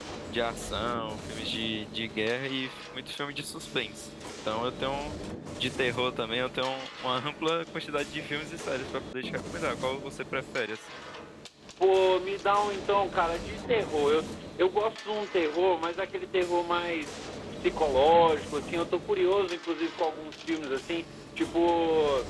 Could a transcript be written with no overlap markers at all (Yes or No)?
Yes